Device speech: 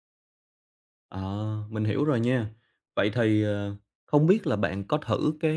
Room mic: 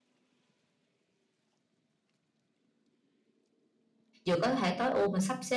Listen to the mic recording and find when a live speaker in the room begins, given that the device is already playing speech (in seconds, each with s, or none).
4.3 s